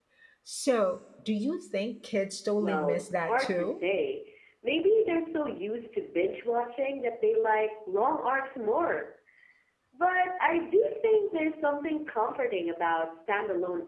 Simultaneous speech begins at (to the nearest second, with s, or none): 3 s